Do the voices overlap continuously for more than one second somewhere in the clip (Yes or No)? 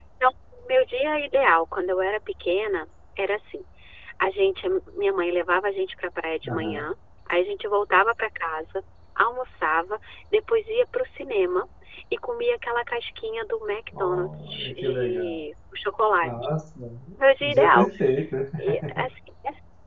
Yes